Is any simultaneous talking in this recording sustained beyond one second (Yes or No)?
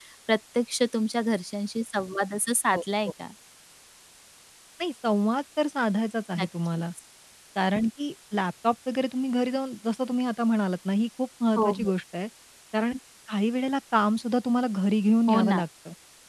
No